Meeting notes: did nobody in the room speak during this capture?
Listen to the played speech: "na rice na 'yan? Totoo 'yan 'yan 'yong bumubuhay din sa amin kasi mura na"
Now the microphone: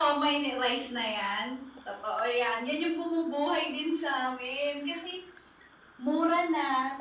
Yes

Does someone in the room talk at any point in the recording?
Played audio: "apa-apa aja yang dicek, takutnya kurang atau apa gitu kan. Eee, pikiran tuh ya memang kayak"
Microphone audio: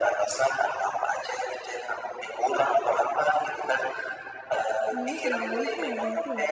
Yes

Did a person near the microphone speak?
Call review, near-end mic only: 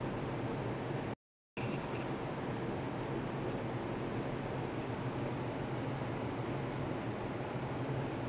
No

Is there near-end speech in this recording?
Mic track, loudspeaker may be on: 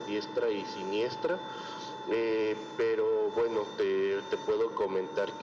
No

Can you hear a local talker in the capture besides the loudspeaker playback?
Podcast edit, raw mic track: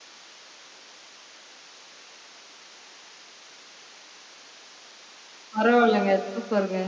Yes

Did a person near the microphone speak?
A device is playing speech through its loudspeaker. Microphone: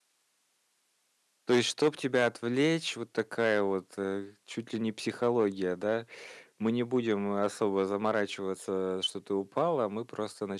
Yes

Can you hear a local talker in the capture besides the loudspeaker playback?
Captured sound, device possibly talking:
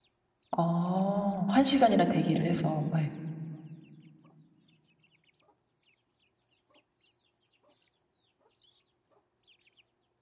Yes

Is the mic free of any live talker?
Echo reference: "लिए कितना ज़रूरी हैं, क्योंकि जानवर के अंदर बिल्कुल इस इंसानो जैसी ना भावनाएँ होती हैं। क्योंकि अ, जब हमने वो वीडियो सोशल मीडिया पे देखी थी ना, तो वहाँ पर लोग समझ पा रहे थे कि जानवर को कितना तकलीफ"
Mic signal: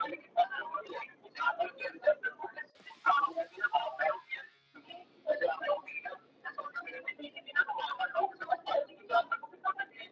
Yes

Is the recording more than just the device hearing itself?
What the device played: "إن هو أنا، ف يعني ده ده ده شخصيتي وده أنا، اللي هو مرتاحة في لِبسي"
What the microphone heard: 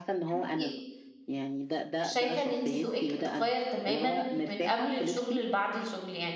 Yes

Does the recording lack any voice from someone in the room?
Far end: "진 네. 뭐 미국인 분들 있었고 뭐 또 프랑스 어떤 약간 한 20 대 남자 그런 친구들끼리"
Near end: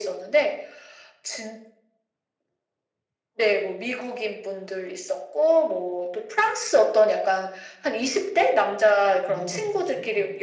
No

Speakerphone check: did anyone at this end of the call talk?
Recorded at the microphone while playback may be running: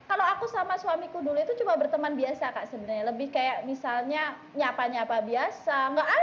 No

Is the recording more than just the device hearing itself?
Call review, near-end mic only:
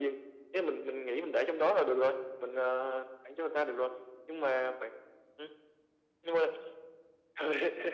No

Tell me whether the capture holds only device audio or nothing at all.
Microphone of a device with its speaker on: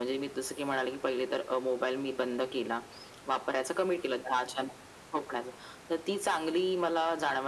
Yes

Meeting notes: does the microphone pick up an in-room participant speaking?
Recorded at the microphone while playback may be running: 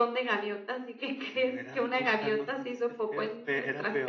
Yes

